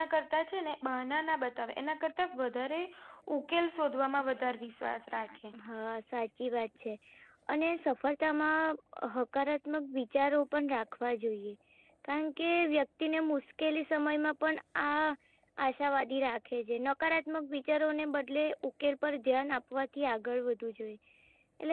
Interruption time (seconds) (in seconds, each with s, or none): none